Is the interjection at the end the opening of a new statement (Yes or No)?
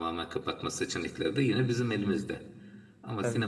No